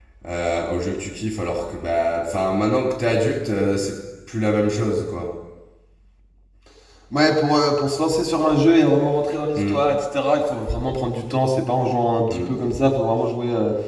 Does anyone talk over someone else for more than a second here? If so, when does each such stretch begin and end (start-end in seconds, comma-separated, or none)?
none